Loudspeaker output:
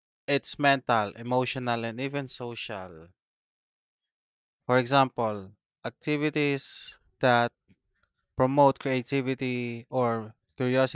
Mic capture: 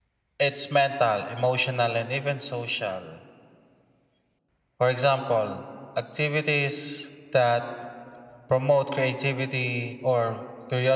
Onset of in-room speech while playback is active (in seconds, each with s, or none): none